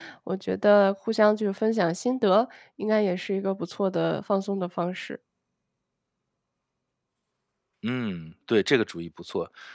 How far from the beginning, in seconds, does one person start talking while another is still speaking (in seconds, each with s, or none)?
none